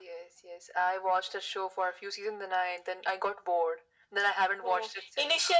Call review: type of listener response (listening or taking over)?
taking over